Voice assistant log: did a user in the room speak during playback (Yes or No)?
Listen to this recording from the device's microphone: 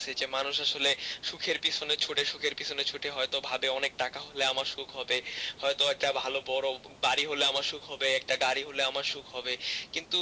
No